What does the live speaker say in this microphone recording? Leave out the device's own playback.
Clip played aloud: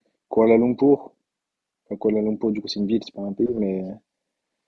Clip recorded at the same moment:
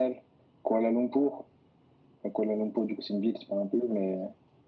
none

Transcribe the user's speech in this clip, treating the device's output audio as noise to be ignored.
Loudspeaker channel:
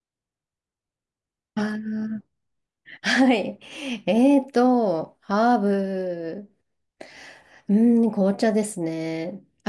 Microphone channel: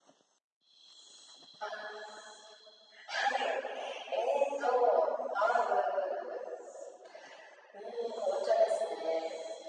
none

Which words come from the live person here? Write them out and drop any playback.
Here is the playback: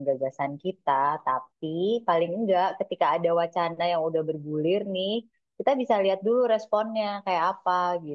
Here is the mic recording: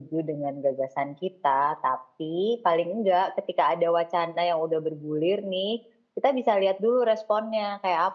none

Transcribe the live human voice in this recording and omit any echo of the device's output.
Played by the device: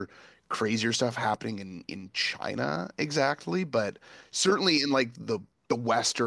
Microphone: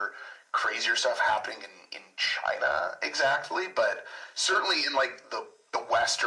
none

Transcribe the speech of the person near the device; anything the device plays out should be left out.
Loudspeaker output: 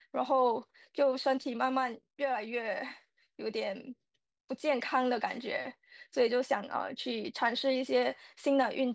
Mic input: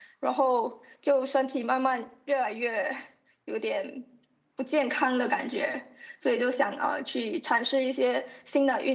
none

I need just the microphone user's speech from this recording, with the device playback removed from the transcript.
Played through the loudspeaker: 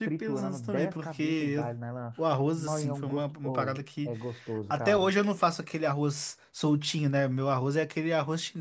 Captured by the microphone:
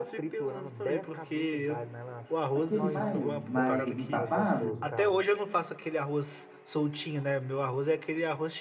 Aquele mais, mais empapado,

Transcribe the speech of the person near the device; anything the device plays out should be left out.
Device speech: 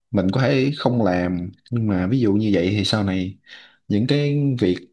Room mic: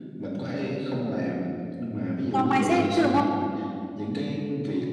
do mindset chứ đúng không

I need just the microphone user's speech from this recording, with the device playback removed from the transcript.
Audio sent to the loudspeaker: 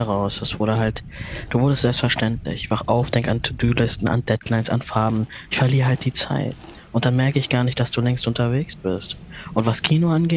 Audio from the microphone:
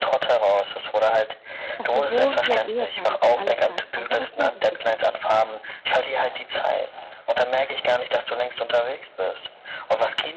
Dass wir wohnen wie ein Ehepaar, das sich alles sagt, außer das Wesentliche.

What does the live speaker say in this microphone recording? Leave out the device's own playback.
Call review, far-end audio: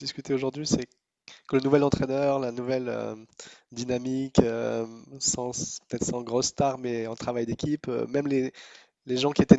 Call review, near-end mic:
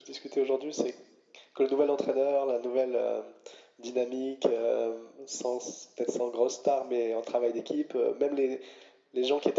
none

